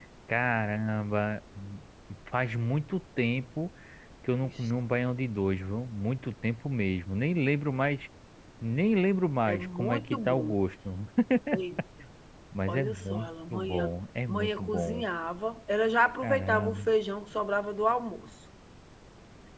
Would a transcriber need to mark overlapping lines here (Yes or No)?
Yes